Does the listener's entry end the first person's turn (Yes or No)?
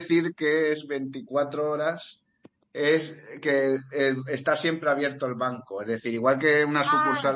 No